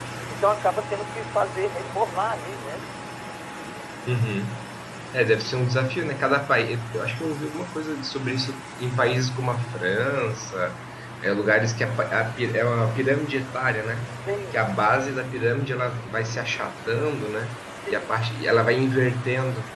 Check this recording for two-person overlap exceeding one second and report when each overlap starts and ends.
none

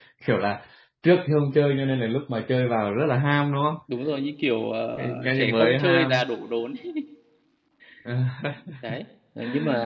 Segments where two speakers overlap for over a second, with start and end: 5.0-6.3

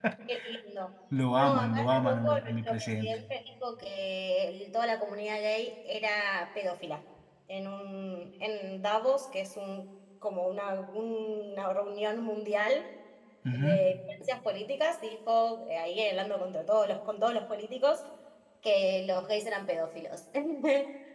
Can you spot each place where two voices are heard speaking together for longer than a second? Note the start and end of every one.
1.3-3.2

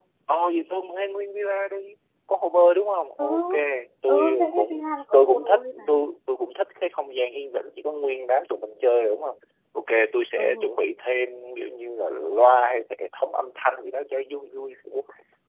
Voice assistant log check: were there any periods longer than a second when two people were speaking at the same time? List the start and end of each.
4.1-5.8

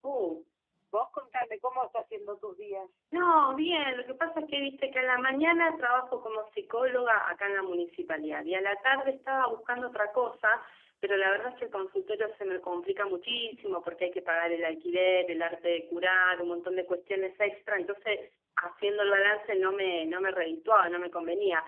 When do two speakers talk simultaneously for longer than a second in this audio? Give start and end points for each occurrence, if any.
none

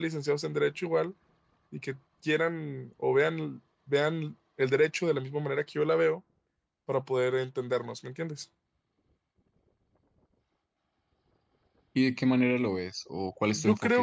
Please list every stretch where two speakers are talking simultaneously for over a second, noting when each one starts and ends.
none

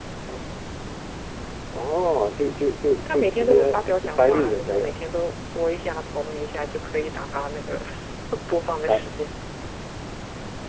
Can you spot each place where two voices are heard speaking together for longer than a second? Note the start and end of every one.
2.9-4.9

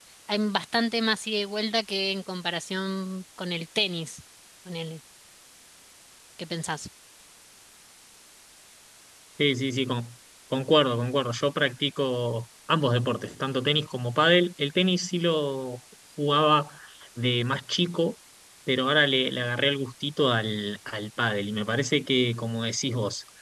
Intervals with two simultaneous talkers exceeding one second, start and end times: none

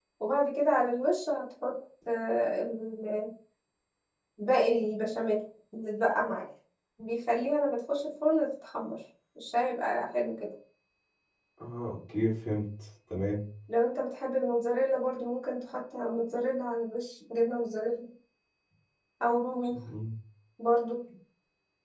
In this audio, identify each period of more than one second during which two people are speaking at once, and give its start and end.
none

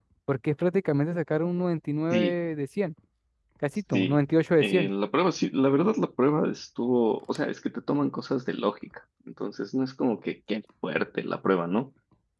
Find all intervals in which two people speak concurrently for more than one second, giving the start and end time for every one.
none

